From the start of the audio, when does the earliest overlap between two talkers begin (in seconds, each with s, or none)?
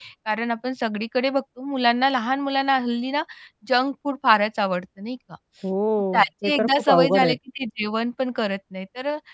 6.1 s